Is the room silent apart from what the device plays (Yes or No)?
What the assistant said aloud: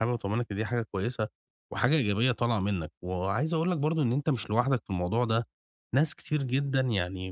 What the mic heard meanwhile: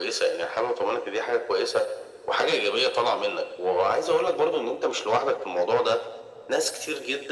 Yes